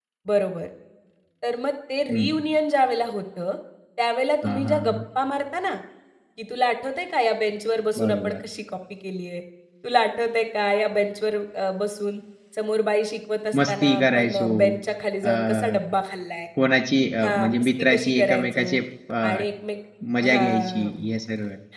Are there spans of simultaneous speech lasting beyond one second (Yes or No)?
Yes